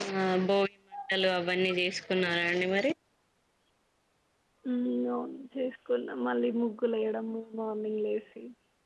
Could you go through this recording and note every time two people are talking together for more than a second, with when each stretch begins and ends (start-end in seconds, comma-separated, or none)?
none